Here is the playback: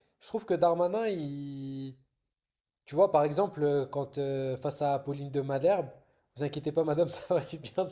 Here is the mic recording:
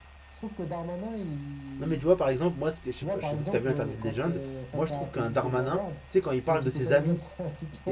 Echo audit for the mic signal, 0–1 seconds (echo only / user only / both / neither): echo only